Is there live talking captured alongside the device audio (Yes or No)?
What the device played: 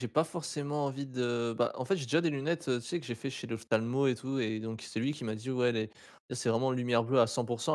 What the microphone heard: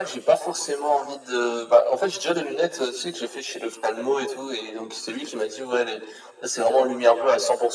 No